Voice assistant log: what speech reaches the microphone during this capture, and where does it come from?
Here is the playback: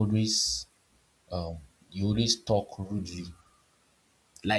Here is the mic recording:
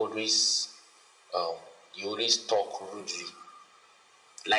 echo only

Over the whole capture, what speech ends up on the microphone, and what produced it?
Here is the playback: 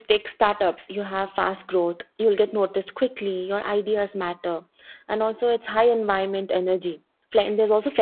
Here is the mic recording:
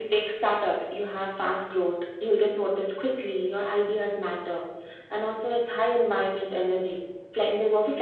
echo only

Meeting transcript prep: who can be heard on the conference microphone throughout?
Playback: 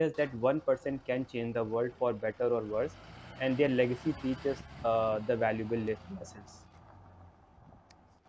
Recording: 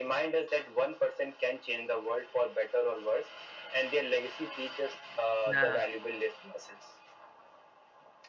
both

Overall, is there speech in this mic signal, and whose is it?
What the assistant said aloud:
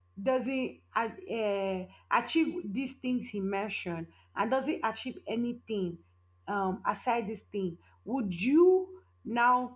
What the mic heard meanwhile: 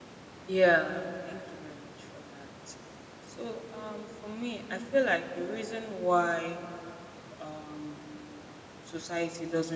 user only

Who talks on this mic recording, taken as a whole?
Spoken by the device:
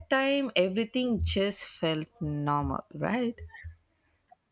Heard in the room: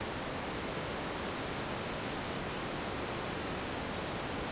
neither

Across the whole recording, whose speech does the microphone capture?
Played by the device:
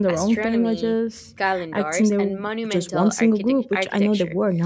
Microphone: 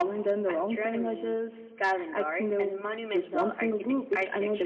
echo only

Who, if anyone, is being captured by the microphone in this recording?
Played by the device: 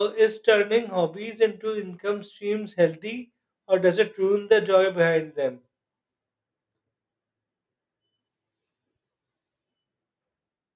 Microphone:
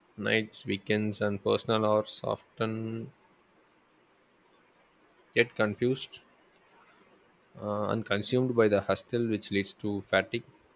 user only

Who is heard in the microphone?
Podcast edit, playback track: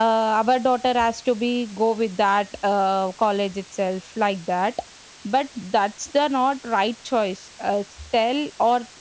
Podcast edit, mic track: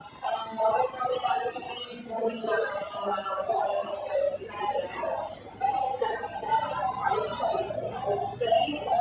echo only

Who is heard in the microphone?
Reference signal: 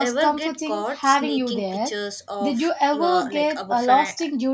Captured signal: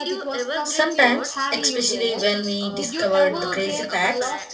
both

